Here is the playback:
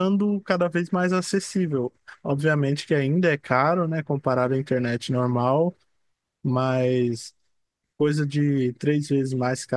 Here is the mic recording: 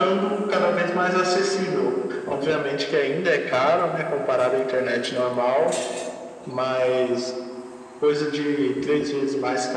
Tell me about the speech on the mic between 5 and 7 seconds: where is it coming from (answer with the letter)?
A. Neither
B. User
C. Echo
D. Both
C